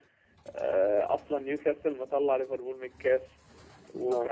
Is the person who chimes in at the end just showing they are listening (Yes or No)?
Yes